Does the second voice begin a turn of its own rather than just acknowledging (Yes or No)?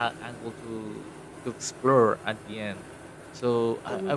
No